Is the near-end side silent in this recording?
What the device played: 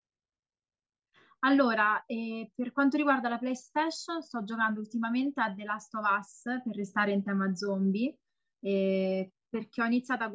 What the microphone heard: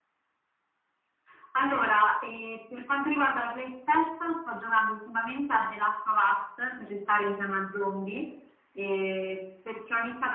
Yes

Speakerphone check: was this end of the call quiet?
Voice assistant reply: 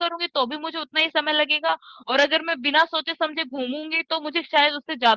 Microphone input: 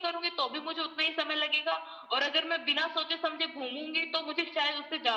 Yes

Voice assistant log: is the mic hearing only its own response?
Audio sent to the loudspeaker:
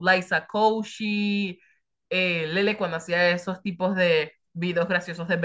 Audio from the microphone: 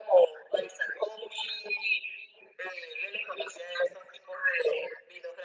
Yes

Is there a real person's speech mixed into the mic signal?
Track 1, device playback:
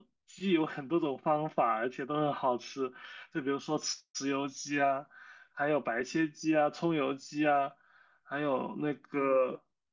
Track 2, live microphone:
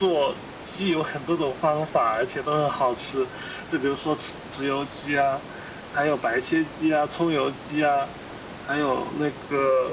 No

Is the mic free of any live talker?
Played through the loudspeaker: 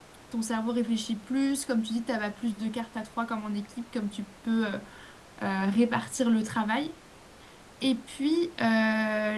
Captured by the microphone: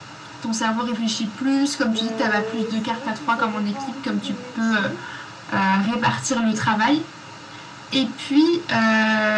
No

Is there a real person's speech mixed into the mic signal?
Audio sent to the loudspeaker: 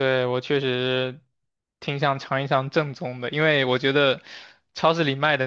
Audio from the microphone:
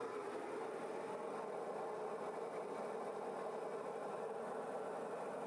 No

